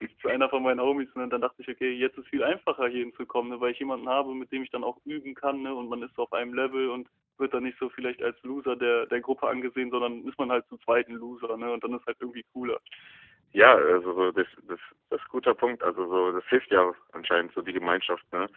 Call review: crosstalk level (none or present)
none